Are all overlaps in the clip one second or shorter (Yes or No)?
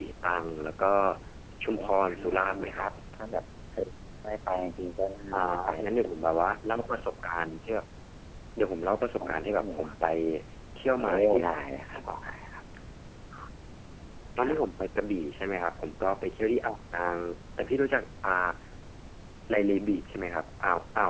No